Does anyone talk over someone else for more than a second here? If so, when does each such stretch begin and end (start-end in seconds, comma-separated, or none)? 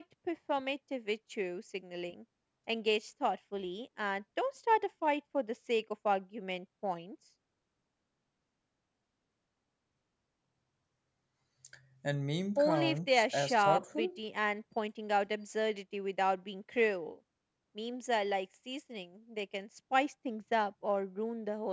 12.6-14.2